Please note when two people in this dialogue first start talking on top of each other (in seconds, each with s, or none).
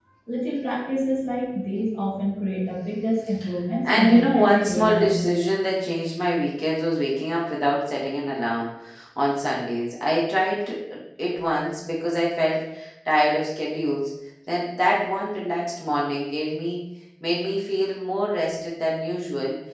3.8 s